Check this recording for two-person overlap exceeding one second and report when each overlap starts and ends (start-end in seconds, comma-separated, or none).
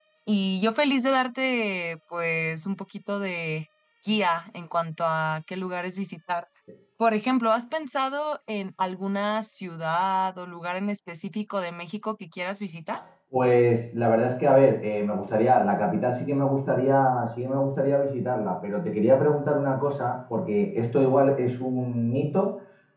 none